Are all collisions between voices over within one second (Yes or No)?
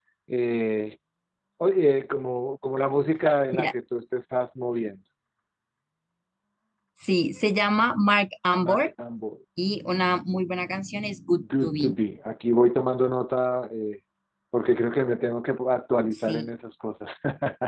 Yes